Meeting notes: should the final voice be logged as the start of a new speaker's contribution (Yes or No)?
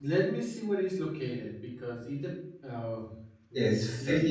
Yes